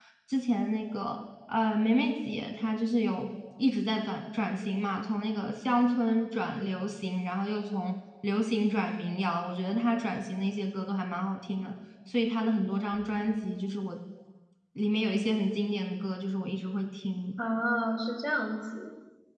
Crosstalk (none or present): none